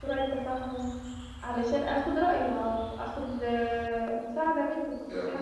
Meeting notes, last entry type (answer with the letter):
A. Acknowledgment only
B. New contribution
B